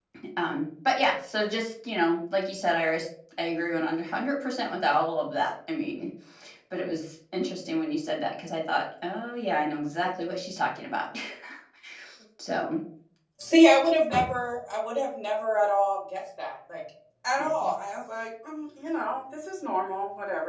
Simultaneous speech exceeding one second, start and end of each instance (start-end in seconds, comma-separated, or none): none